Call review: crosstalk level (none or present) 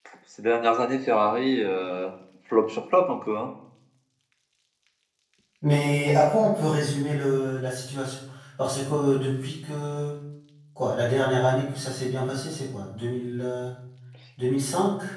none